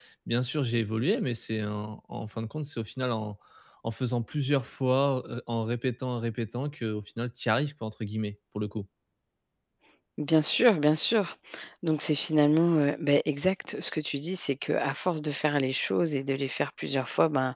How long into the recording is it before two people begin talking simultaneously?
none

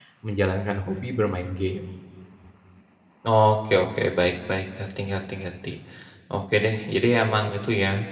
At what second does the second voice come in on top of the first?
none

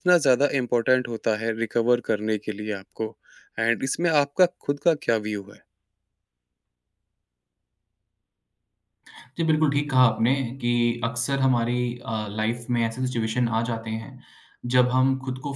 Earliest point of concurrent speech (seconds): none

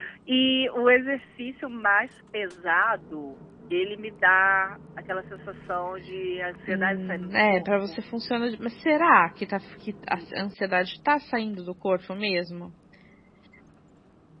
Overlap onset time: 6.6 s

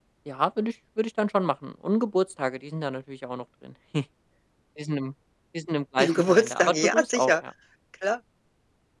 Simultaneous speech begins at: 6.0 s

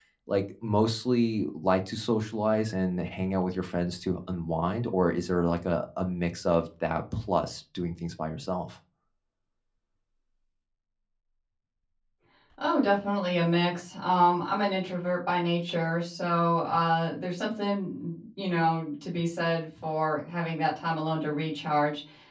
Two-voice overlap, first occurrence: none

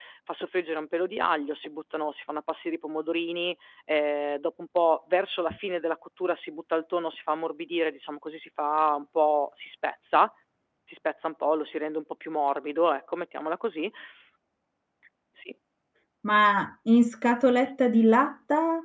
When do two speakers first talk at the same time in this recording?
none

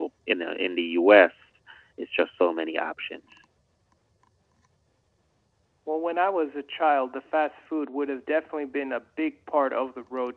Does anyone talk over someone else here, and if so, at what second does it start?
none

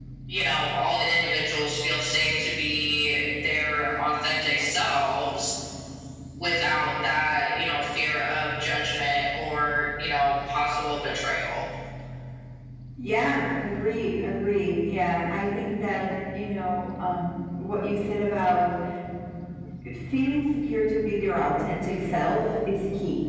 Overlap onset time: none

